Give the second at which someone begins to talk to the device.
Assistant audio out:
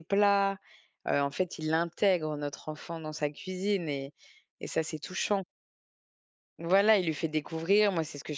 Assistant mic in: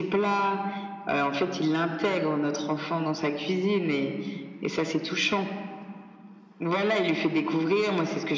none

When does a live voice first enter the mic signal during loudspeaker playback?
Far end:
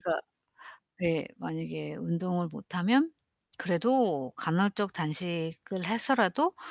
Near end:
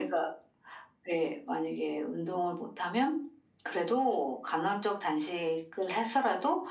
none

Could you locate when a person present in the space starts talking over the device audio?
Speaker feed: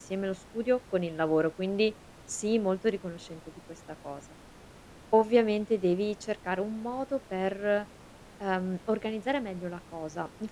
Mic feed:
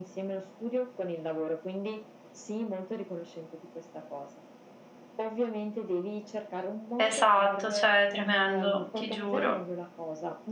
7 s

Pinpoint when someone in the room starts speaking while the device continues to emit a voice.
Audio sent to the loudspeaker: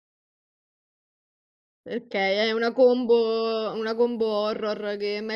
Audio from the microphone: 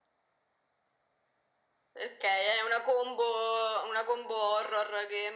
none

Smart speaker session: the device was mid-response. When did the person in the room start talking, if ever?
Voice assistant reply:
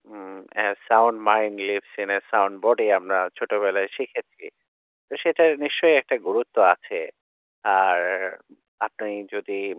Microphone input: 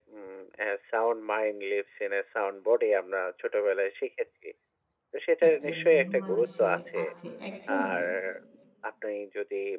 5 s

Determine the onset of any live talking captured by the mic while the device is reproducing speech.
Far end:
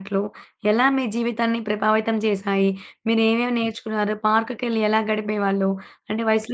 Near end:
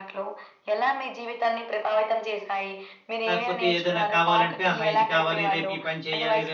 3 s

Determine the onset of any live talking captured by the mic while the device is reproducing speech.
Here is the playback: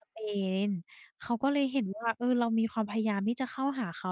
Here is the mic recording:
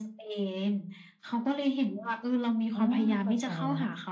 3 s

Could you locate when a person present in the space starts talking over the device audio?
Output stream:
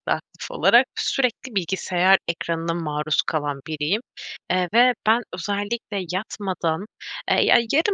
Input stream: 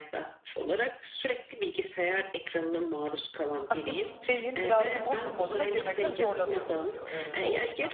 4 s

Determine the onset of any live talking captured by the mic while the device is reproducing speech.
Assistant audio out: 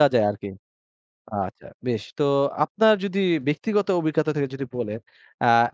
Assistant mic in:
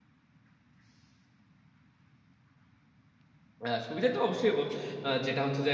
4 s

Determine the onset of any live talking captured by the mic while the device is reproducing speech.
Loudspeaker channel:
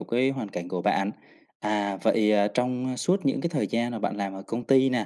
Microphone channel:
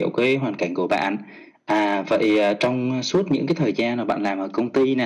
none

